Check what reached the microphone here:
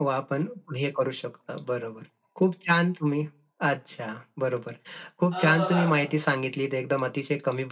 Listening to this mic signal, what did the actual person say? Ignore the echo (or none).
अ, बघा